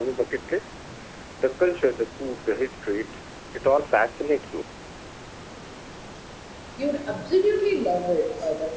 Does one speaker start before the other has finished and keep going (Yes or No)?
No